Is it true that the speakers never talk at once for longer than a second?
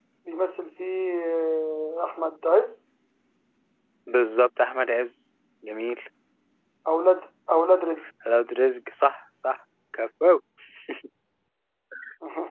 Yes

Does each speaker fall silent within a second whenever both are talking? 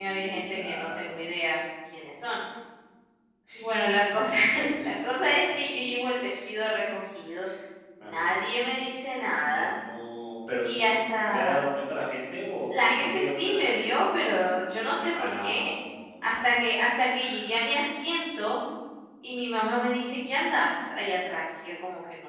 No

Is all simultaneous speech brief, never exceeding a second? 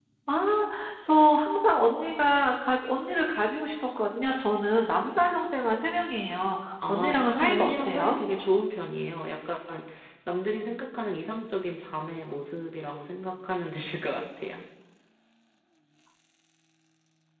No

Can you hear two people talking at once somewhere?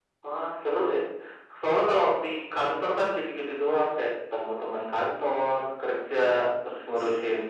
No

